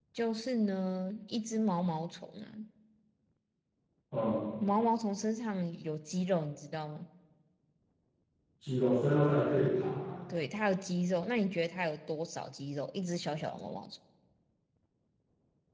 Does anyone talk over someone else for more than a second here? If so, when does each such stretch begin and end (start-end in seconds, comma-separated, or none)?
none